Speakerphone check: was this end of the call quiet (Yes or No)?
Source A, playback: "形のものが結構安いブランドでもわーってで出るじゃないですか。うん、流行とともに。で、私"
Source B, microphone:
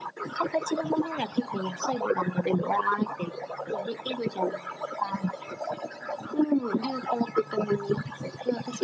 Yes